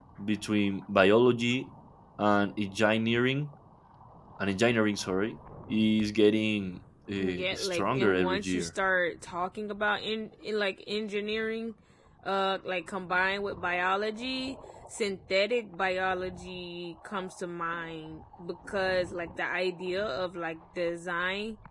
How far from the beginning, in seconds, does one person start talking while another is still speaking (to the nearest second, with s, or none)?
7 s